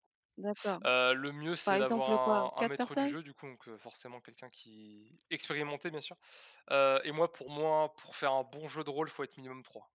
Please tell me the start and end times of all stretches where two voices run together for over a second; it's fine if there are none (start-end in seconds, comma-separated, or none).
1.7-3.2